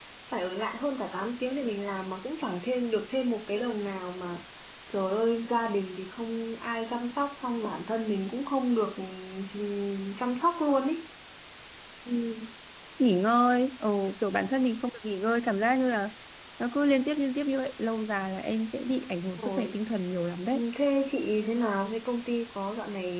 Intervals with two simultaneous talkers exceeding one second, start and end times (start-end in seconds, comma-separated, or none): none